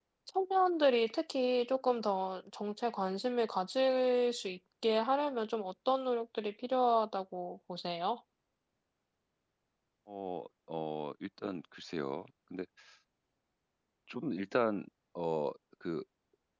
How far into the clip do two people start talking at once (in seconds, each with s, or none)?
none